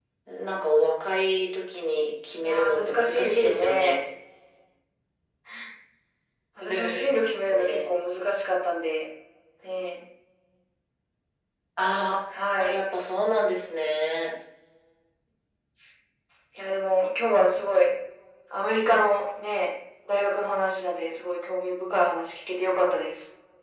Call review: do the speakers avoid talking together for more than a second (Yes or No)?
No